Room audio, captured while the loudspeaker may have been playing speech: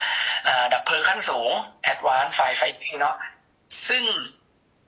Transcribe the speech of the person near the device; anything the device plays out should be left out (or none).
none